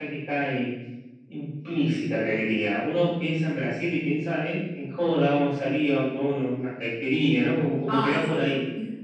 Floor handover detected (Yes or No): Yes